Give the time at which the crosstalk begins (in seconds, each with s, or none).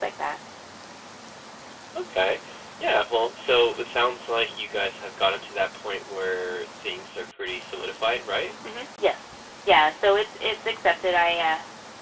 none